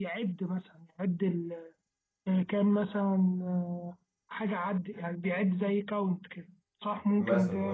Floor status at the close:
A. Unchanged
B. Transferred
B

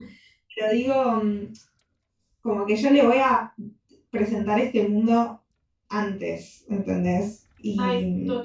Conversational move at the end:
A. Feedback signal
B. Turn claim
B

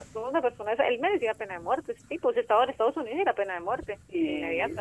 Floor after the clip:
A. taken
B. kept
A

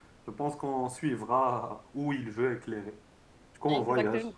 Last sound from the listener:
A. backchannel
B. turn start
A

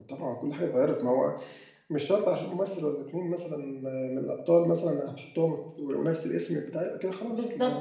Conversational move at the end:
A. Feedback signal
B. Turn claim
B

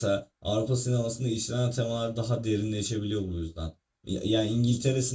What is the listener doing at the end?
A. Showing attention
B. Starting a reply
A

